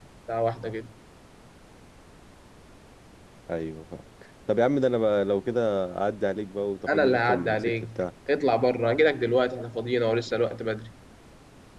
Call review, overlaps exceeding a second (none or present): present